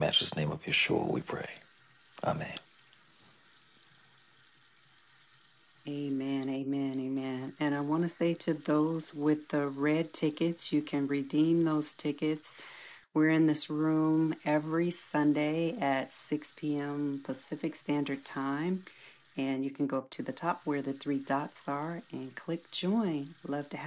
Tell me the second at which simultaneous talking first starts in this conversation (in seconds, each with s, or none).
none